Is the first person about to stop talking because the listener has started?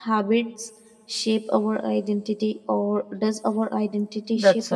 Yes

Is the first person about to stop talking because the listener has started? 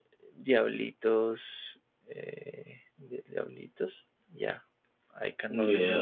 Yes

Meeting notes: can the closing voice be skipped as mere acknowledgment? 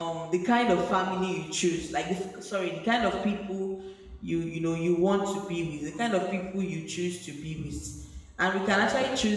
Yes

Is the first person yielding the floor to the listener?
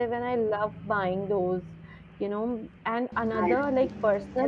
No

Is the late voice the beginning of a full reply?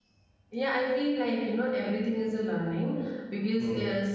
No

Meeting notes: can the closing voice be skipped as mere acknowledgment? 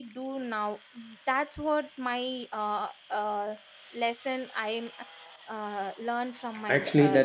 No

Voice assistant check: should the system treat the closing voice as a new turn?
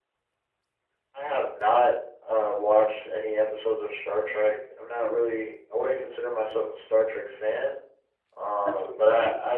No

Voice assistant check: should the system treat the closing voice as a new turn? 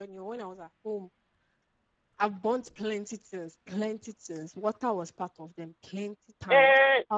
Yes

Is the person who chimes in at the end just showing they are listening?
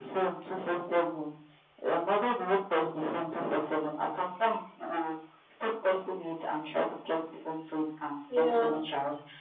Yes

